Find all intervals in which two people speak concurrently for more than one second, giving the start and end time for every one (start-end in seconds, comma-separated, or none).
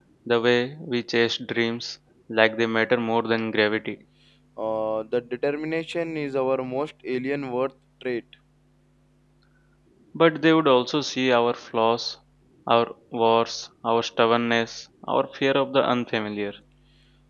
none